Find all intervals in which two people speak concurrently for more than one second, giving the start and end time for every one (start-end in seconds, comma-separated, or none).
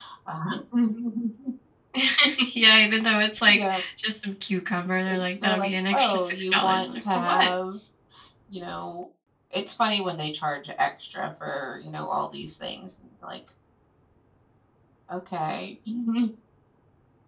5.1-7.5